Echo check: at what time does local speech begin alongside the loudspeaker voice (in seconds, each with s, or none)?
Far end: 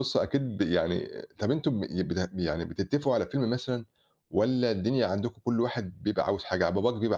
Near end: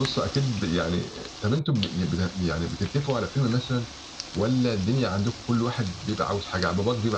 none